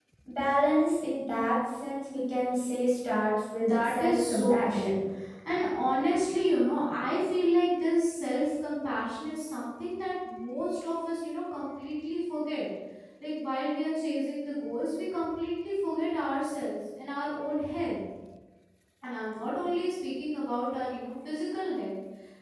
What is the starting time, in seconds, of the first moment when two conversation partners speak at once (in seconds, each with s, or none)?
3.6 s